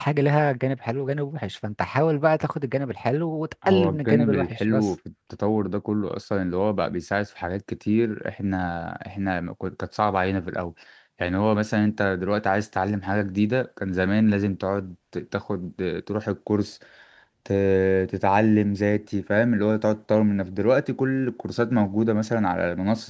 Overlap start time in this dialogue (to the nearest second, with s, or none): 4 s